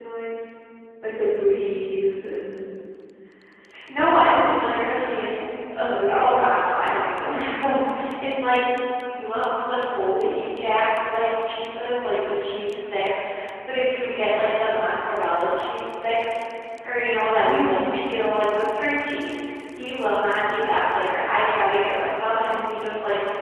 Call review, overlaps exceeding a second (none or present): none